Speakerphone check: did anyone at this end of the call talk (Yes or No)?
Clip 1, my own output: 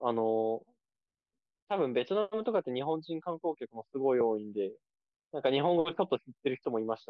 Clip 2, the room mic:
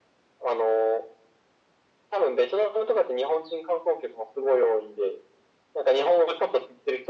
No